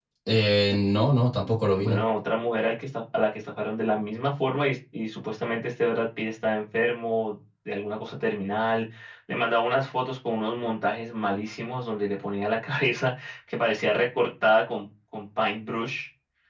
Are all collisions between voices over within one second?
Yes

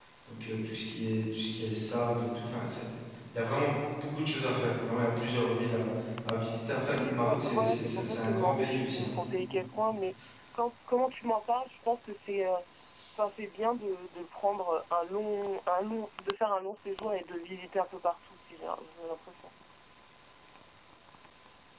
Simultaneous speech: Yes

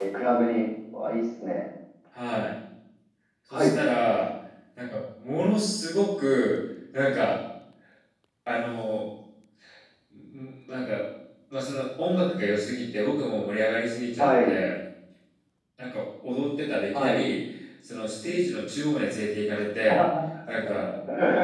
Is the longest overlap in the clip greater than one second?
No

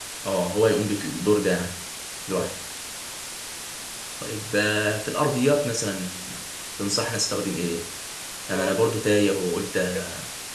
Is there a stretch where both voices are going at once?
Yes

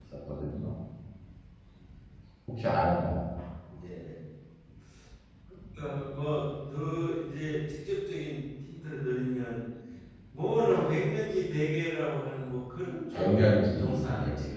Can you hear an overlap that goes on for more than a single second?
Yes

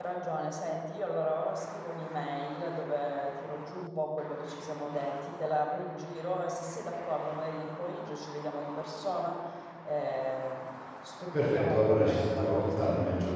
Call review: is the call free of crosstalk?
No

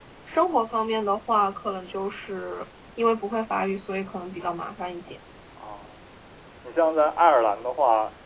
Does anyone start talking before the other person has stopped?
No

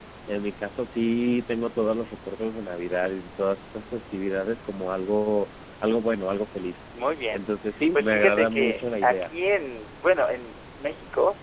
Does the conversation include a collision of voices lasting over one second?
Yes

